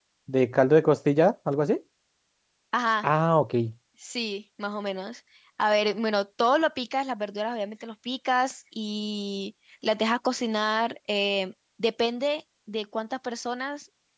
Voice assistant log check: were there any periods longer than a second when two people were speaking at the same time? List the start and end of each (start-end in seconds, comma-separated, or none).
none